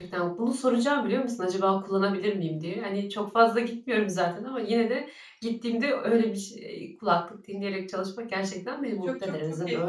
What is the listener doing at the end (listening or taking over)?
taking over